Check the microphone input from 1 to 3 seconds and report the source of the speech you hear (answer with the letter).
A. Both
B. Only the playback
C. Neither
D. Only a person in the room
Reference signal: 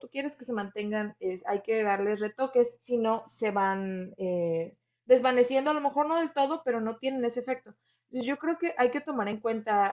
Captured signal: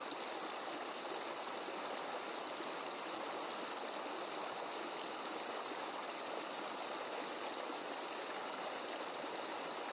C